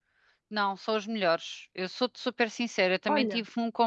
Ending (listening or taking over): listening